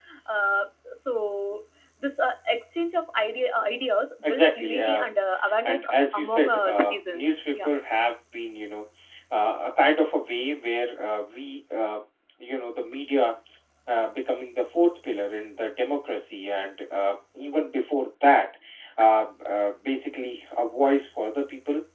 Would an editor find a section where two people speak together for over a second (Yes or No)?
Yes